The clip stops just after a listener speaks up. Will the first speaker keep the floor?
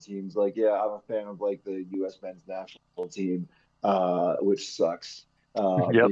Yes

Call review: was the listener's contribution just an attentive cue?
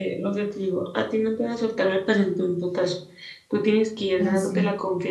Yes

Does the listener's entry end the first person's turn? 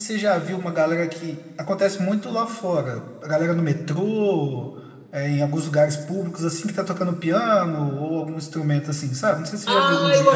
Yes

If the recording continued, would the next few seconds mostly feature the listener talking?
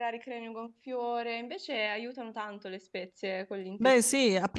Yes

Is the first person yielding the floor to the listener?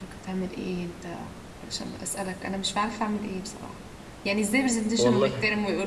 No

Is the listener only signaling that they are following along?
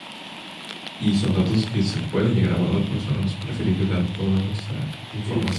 No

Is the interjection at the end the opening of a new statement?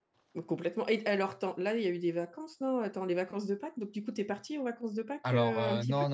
Yes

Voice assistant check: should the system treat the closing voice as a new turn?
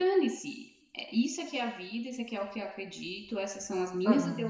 No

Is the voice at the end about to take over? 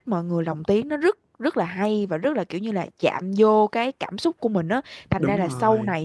No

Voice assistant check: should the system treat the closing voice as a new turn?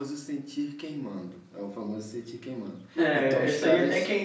Yes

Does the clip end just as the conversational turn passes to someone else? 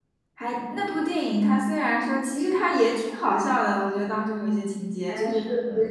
No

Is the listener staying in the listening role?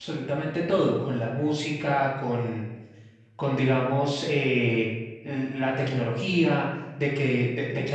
Yes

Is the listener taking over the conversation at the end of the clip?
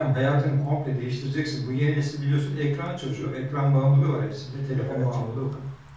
No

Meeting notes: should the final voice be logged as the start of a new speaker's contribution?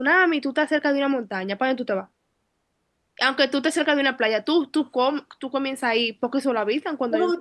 Yes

